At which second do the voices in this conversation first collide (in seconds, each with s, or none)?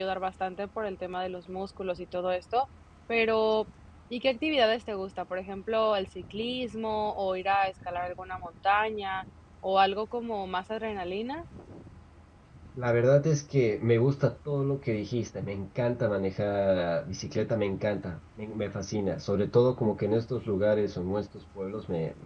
none